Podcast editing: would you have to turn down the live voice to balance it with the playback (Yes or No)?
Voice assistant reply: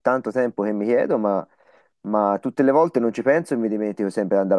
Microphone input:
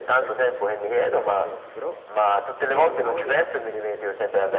No